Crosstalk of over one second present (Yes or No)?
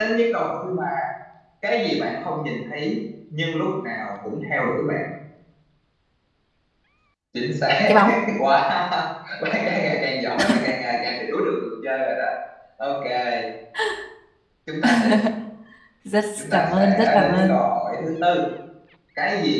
Yes